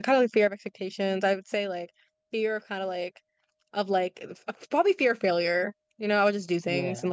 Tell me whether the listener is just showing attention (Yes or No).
Yes